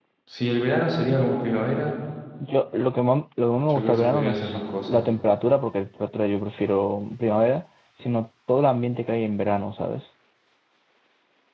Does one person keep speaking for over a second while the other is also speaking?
Yes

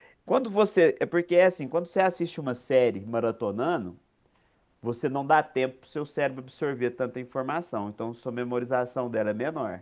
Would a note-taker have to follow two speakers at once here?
No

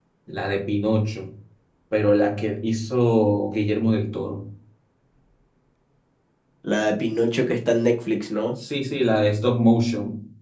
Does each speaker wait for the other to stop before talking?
Yes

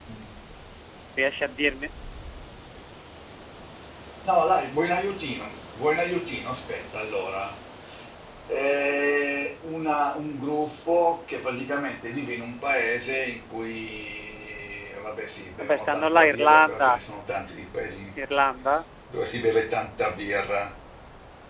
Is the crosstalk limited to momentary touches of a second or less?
No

